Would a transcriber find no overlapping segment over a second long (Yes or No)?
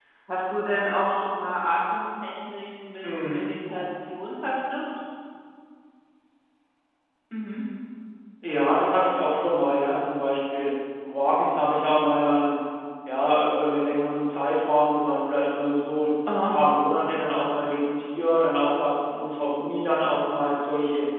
Yes